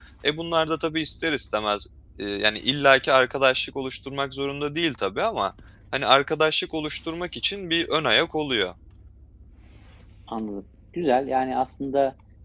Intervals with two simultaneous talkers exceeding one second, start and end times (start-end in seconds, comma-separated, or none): none